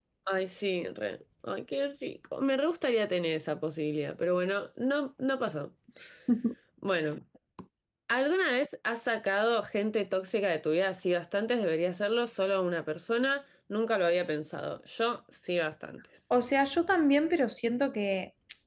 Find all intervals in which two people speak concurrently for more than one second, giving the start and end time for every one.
none

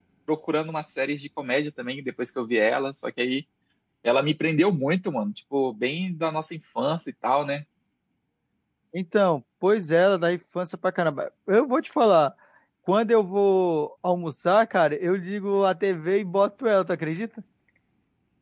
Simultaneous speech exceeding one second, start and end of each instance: none

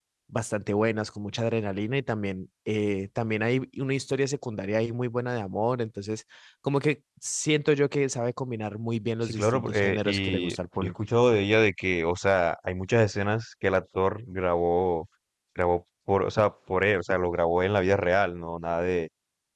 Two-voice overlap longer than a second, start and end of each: 9.2-10.9

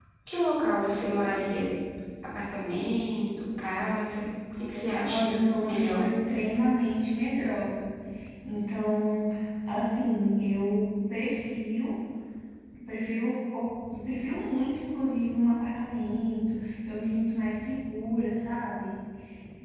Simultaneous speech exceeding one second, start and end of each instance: none

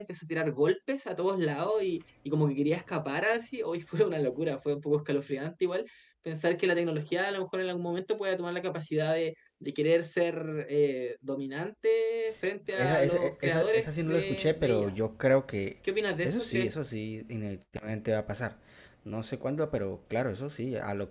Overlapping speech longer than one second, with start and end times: 12.8-14.9

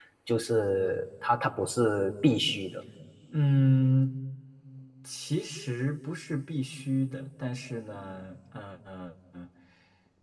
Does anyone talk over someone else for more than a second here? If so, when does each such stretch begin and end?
none

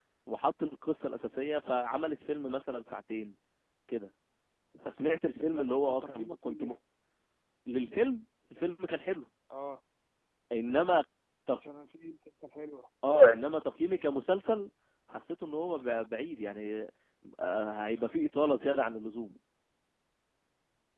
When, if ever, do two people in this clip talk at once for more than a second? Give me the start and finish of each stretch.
5.5-6.8

